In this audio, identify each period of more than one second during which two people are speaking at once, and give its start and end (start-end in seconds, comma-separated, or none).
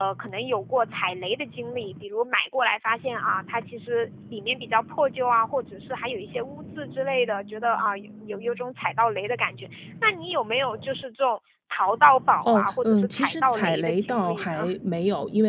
12.5-14.7